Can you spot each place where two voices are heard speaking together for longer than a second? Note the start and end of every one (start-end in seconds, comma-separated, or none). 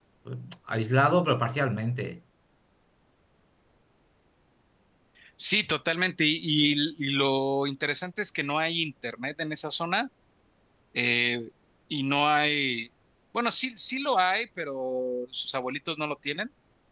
none